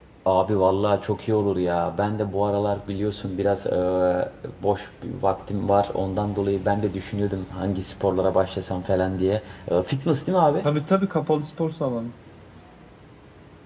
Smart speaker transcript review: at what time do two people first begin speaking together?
none

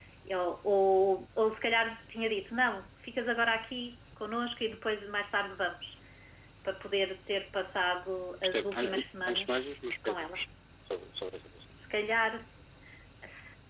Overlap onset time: 8 s

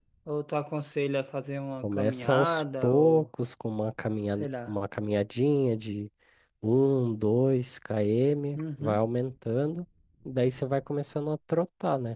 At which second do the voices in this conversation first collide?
2 s

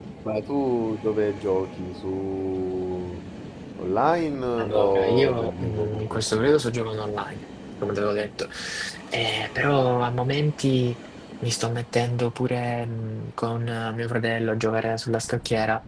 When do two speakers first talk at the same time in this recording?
5 s

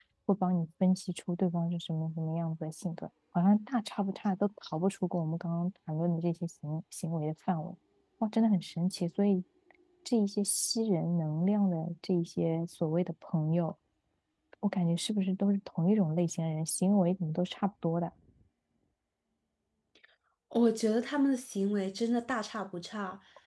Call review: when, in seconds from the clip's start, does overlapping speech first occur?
none

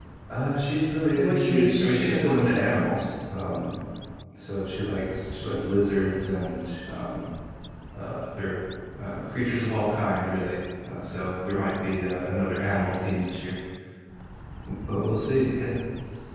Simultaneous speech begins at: 1 s

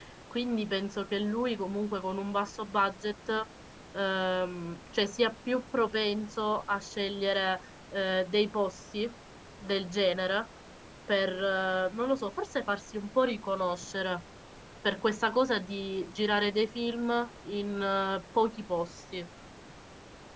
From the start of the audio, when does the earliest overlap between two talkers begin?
none

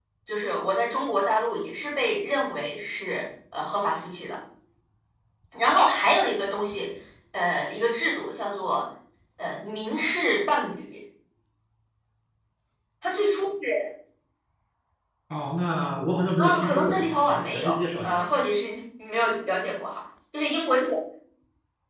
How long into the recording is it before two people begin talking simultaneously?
16 s

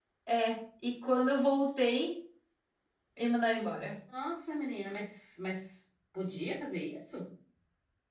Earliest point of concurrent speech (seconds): none

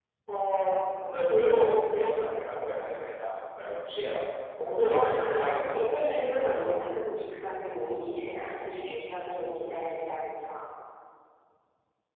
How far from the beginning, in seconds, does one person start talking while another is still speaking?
5 s

